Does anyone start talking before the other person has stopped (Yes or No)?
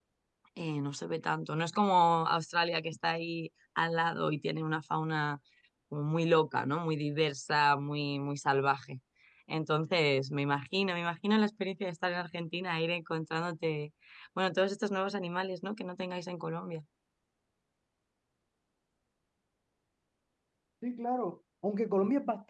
No